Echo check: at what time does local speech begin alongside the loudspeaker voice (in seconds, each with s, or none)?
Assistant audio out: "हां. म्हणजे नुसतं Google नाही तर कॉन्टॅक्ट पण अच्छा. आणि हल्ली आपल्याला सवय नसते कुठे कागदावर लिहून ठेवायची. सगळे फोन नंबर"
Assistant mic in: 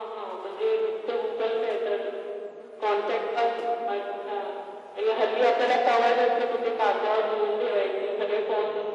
none